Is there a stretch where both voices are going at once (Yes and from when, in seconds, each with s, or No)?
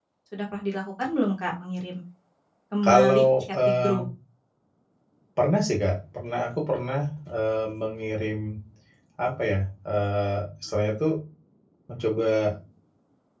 Yes, from 2.8 s